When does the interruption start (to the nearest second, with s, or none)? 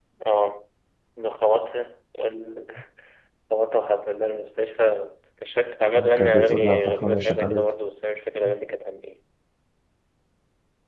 6 s